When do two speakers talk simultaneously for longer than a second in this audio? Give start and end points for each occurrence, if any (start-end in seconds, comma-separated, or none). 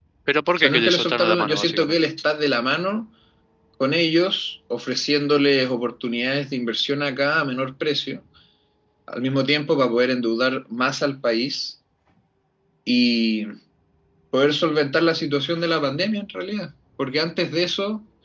0.6-2.0